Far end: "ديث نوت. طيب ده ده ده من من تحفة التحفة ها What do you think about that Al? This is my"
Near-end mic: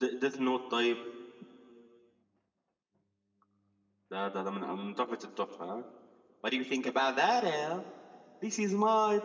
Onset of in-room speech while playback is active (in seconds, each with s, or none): none